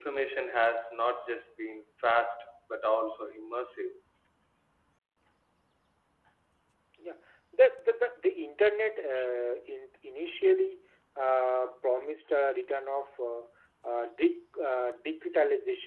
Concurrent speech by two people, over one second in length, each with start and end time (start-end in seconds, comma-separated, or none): none